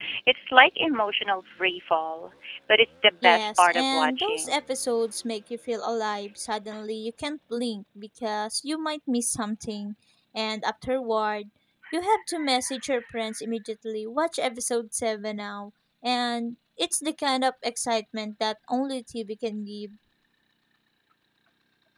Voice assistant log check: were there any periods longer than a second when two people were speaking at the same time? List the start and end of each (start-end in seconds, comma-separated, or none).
3.2-4.5